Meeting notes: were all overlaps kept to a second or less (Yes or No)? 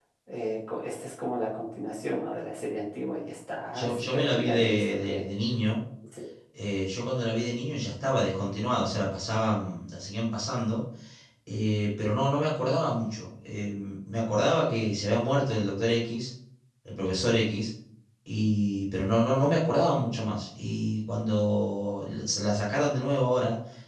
No